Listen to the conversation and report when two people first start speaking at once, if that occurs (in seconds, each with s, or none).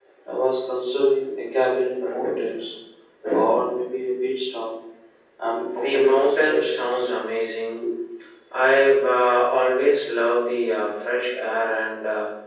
5.8 s